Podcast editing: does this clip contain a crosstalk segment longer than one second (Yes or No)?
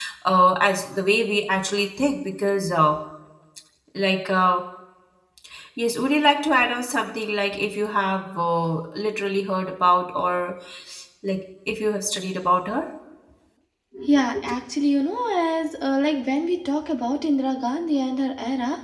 No